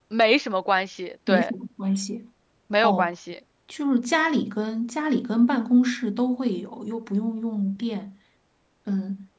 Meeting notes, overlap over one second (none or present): none